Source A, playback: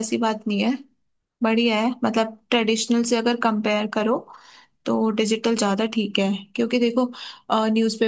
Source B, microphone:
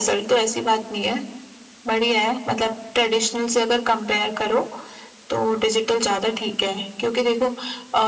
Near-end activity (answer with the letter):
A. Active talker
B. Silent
B